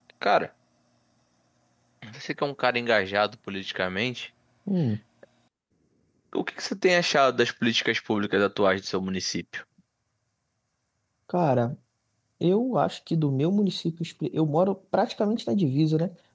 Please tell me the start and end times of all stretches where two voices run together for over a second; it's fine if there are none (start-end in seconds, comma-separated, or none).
none